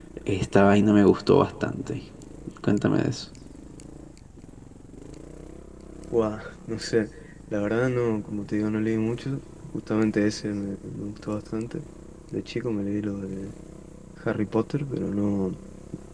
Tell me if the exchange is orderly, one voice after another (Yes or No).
Yes